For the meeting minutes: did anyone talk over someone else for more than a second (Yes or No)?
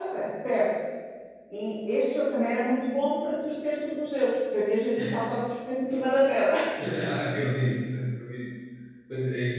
No